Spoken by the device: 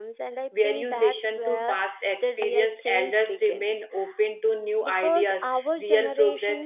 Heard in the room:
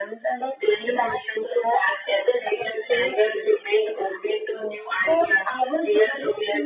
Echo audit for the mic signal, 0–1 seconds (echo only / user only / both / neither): echo only